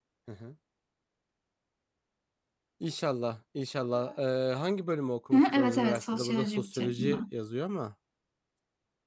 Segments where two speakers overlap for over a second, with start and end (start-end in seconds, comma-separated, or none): 5.3-7.2